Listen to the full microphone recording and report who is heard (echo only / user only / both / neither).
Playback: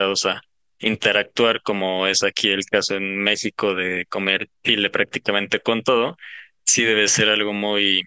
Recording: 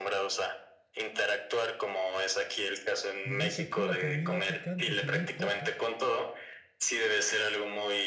both